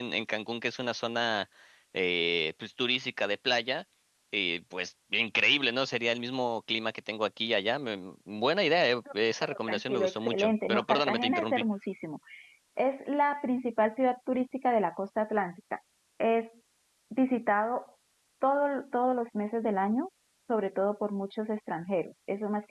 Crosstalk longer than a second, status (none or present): present